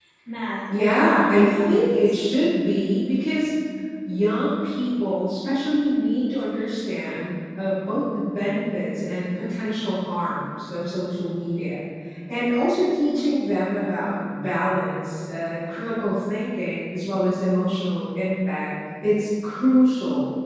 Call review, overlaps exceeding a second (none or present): present